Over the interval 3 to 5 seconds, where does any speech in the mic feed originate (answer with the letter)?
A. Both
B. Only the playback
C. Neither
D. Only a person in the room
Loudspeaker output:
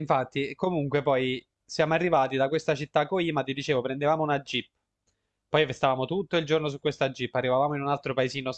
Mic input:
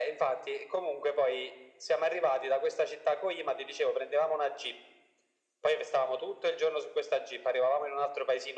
B